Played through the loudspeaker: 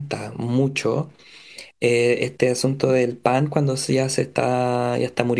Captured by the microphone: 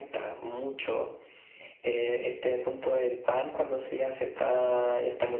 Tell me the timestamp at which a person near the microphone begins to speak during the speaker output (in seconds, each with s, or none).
none